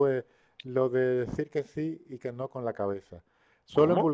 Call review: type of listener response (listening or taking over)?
listening